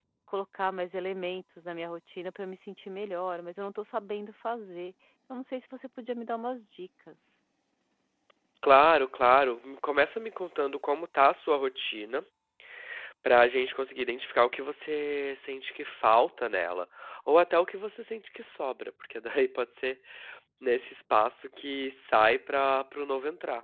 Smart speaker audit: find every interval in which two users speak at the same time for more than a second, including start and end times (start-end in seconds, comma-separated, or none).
none